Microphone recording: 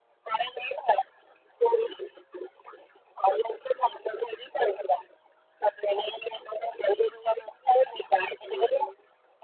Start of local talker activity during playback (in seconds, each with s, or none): 8.5 s